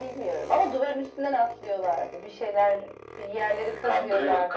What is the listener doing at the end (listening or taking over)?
taking over